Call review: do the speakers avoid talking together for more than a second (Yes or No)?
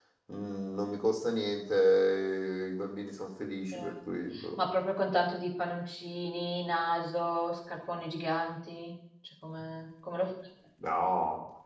Yes